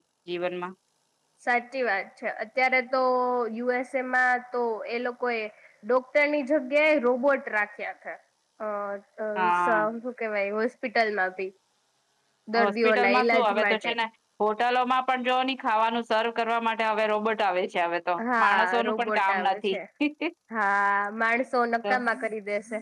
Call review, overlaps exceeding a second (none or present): present